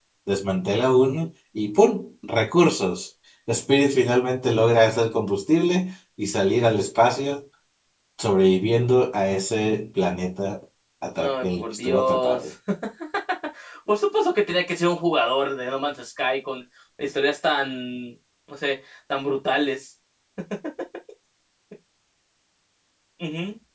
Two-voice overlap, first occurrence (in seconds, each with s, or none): 11.2 s